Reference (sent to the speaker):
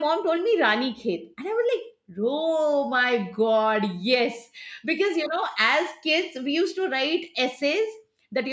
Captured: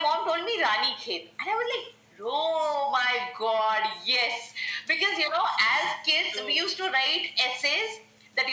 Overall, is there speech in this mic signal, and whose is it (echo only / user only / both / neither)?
both